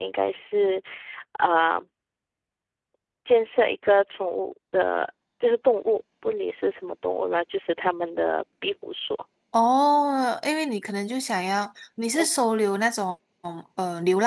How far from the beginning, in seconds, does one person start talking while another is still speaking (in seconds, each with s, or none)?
none